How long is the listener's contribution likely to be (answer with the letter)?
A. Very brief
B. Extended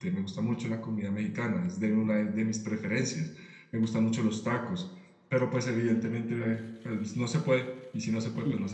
B